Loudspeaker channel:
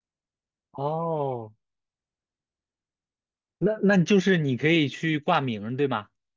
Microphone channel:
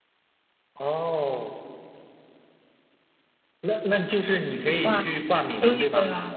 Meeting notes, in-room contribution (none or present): present